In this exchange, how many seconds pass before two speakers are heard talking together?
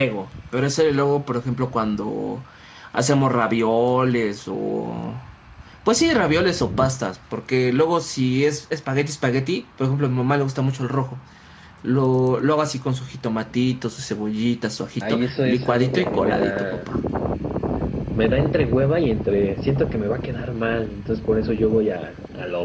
15.0 s

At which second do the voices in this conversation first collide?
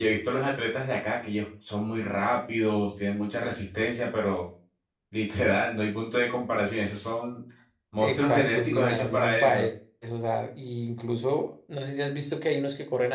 8.0 s

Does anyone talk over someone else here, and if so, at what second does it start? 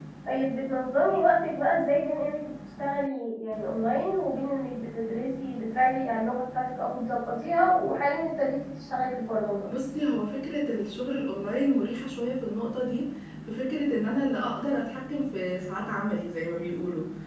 none

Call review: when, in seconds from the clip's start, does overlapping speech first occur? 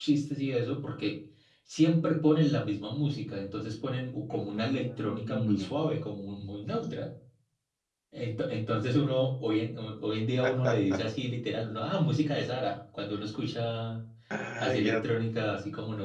4.3 s

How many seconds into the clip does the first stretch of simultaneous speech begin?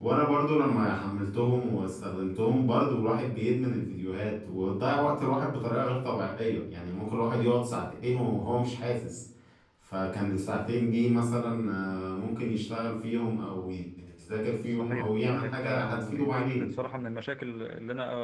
14.7 s

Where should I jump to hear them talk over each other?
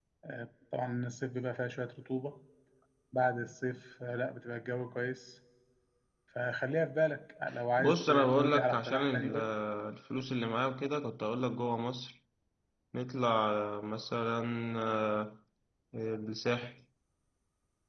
7.8 s

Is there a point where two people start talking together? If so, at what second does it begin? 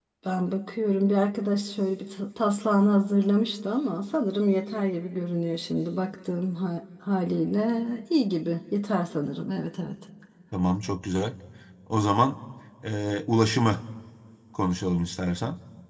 none

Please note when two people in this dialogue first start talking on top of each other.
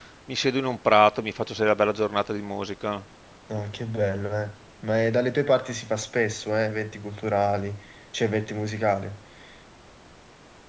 none

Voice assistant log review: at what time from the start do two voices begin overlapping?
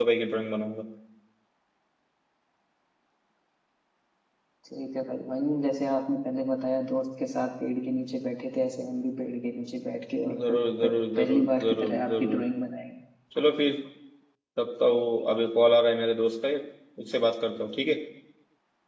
10.3 s

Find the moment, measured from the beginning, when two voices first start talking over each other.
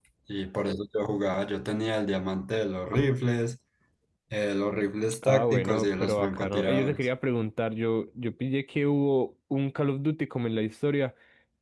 5.2 s

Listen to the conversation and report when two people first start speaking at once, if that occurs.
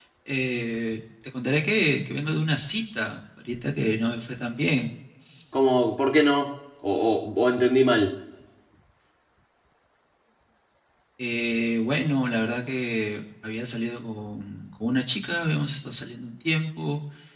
none

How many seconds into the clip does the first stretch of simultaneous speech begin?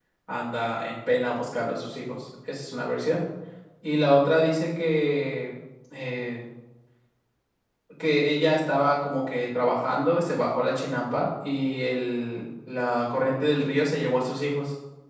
none

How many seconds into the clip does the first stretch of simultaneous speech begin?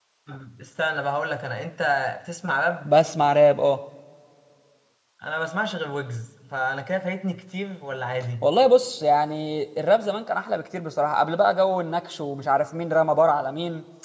none

